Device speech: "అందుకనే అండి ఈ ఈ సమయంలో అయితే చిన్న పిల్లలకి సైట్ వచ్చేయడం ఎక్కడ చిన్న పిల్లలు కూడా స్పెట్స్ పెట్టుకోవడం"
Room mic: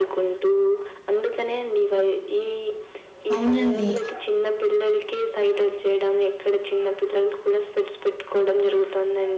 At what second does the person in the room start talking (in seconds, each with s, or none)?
3.4 s